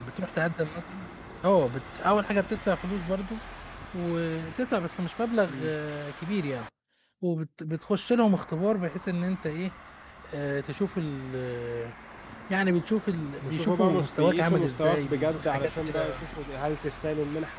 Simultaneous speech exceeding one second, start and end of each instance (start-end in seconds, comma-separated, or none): 13.4-16.2